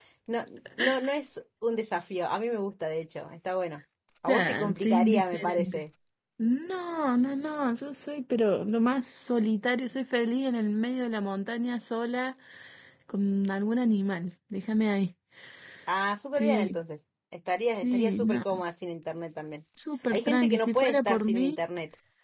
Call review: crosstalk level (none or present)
present